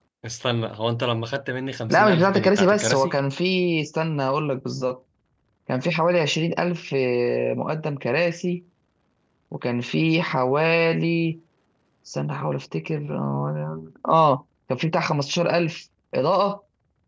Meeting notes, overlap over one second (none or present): present